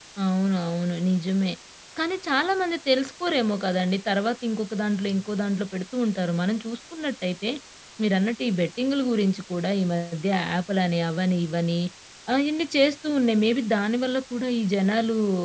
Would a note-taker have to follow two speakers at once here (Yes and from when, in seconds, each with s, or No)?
No